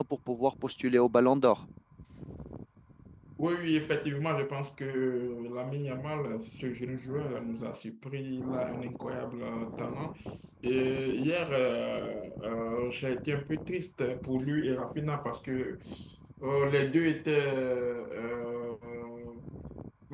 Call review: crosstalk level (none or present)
none